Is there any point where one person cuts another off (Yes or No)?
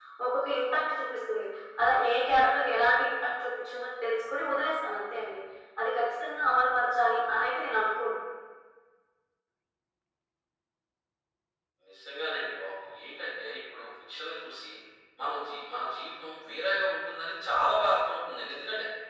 No